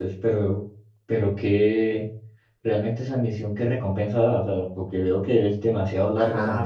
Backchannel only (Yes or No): No